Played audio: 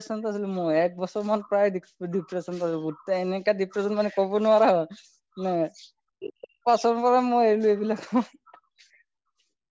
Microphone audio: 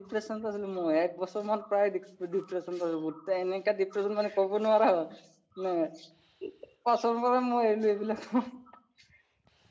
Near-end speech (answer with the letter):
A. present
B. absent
B